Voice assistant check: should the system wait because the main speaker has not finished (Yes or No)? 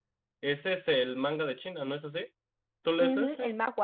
No